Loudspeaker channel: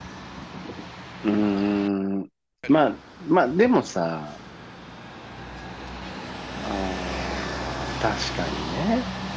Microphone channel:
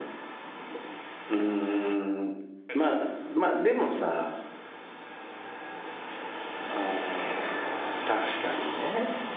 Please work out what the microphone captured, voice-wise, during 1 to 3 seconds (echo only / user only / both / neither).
echo only